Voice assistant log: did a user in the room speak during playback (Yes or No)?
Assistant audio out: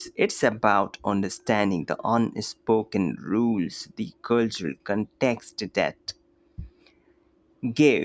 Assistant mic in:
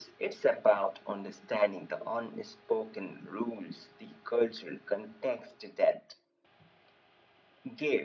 No